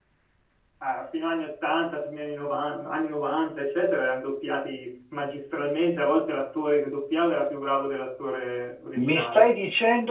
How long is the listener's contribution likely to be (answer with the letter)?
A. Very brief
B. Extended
B